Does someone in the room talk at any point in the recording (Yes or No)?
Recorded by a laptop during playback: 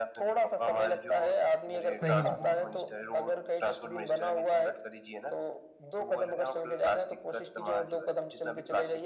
Yes